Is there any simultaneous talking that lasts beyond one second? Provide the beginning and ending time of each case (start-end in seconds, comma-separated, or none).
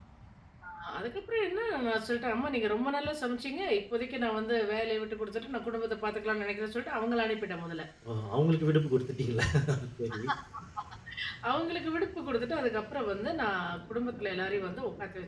none